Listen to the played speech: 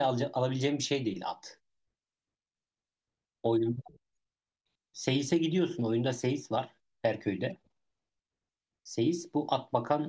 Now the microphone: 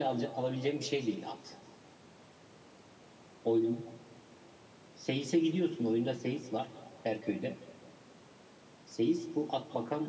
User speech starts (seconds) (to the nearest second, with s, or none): none